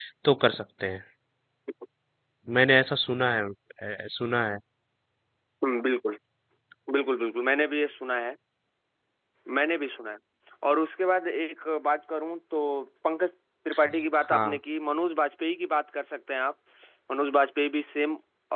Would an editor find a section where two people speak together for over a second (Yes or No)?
No